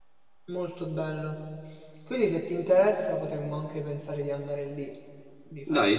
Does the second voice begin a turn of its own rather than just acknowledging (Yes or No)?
Yes